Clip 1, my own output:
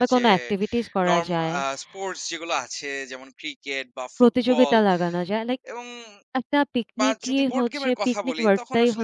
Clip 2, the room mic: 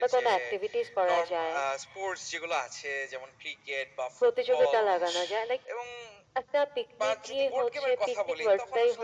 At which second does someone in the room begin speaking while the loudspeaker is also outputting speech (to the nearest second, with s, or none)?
5 s